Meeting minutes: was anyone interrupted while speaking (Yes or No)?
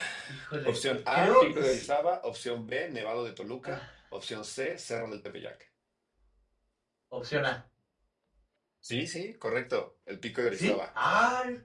Yes